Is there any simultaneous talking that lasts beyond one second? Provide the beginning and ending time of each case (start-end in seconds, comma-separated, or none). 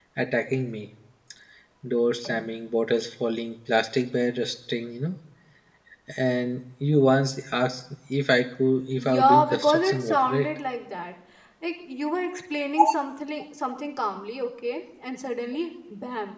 9.0-10.5